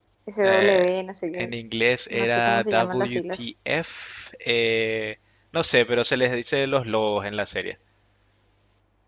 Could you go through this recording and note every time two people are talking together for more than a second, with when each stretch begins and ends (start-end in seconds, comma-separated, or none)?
2.1-3.4